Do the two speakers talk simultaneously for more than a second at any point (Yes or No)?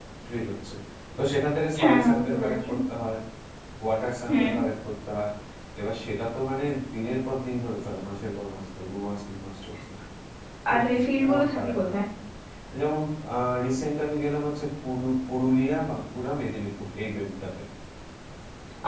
Yes